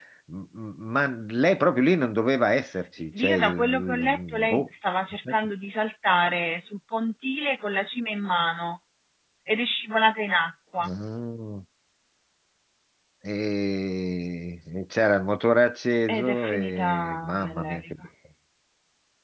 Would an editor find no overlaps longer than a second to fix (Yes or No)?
No